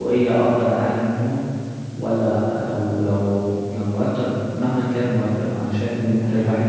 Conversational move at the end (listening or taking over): listening